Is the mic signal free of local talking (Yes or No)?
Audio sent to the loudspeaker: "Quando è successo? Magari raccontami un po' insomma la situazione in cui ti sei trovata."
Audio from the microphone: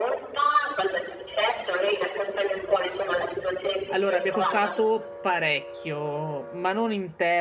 No